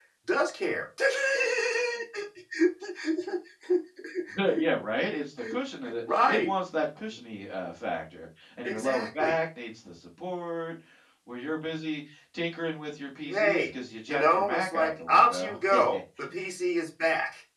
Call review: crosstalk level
present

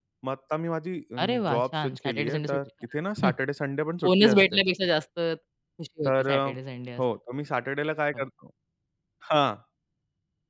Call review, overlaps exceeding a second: present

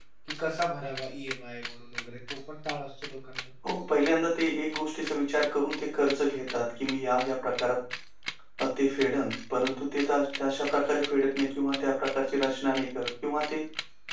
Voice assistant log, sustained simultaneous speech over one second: none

